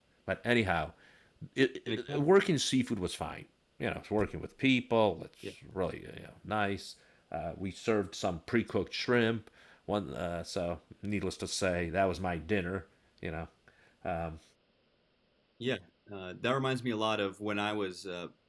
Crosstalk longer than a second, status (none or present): none